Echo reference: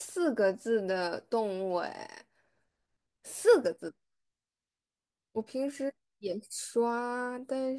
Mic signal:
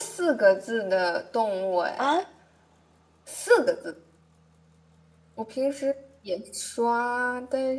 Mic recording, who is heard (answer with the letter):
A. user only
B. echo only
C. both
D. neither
C